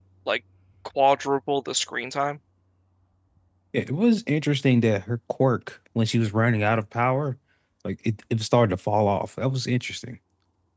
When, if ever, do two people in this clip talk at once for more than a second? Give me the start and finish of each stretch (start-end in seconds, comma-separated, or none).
none